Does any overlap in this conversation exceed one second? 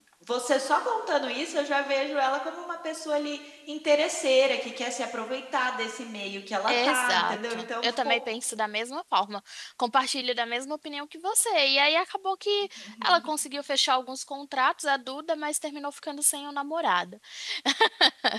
Yes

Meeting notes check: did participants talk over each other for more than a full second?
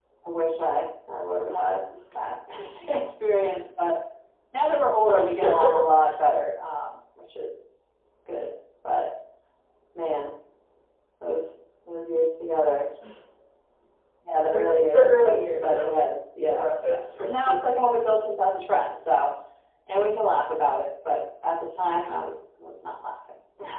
Yes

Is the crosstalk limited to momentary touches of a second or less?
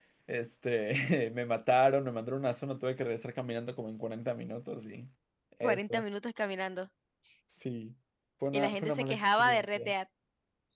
No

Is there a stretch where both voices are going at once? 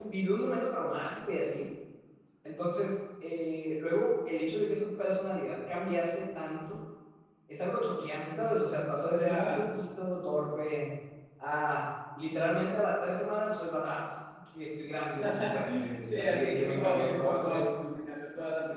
Yes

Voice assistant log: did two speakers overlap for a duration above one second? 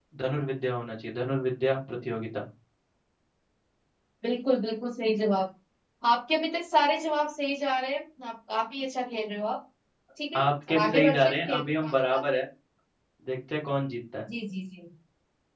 Yes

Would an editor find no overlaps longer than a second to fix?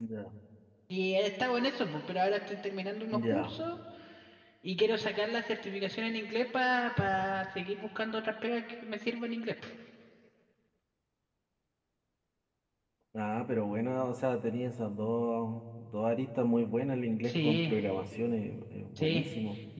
Yes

